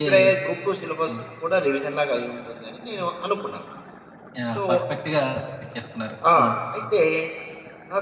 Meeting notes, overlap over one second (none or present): none